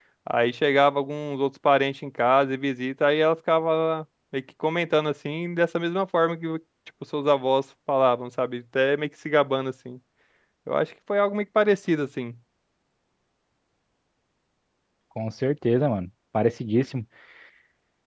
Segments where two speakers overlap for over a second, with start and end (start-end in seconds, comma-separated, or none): none